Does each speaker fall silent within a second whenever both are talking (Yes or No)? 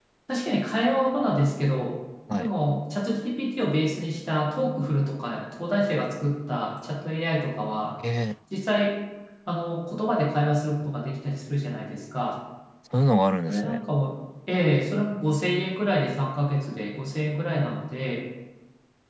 Yes